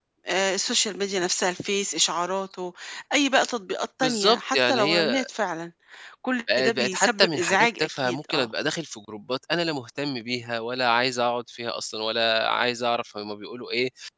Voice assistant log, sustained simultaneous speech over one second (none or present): present